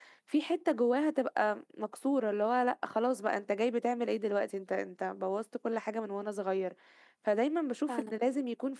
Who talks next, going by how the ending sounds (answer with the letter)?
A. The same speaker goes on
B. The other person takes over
A